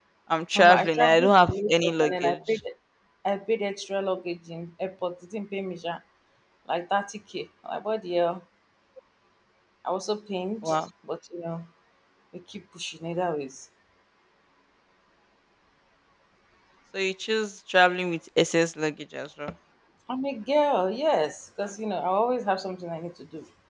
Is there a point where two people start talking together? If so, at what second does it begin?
0.6 s

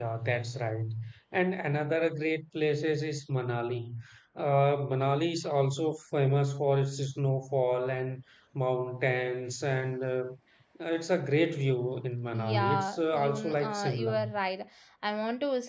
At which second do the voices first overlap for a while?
12.3 s

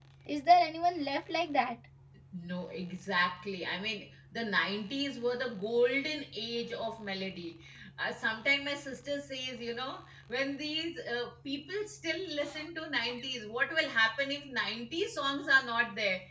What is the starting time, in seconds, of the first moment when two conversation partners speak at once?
none

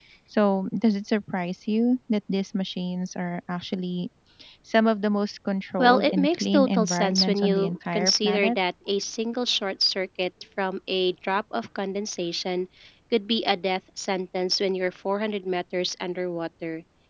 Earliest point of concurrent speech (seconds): 5.8 s

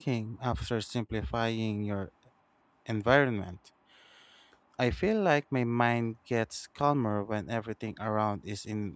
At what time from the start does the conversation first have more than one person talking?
none

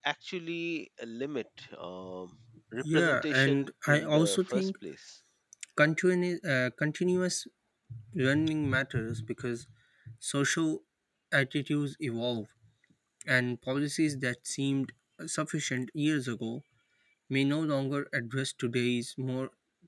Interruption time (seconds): 2.8 s

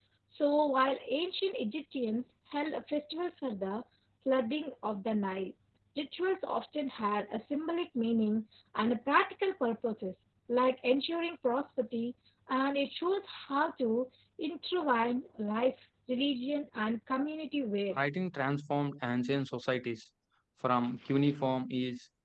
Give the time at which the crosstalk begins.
none

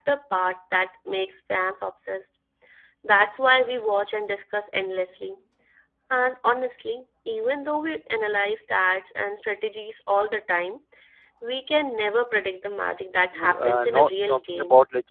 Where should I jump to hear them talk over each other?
13.3 s

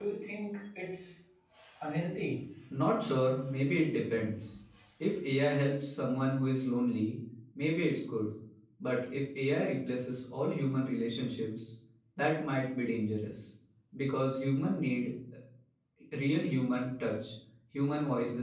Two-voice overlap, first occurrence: none

